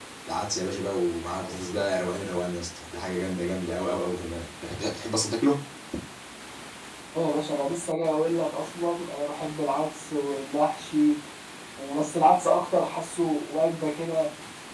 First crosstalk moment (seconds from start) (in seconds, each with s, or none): none